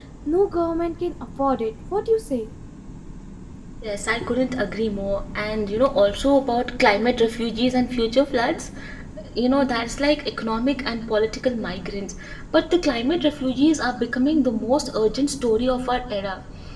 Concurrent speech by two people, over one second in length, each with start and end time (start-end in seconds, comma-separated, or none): none